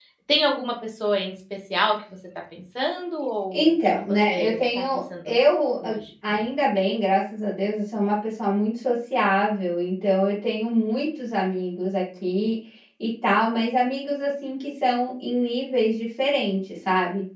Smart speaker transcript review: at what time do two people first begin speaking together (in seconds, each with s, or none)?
3.5 s